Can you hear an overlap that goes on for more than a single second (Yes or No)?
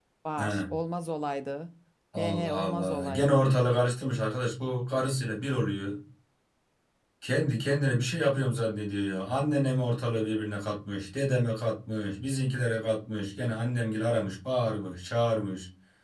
Yes